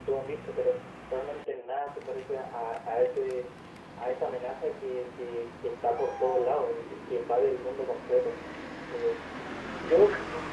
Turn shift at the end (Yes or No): Yes